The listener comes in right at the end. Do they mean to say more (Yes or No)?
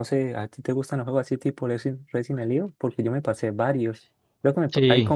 No